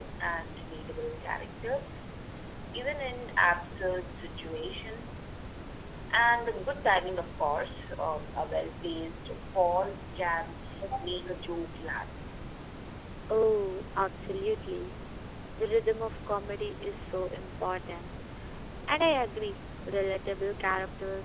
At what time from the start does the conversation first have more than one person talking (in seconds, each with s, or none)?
none